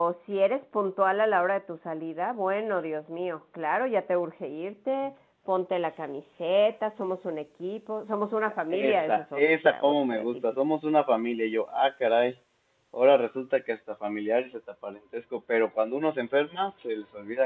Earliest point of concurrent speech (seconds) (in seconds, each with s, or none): 8.7 s